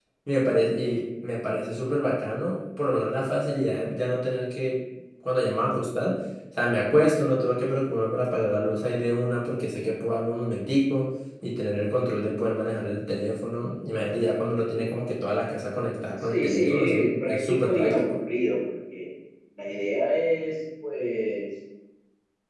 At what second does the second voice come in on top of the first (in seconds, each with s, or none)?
16.2 s